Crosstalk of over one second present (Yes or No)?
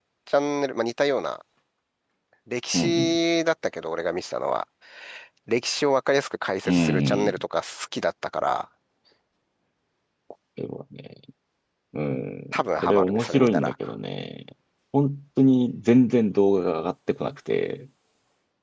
Yes